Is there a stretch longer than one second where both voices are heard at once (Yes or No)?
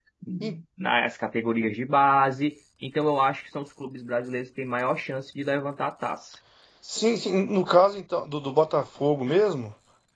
No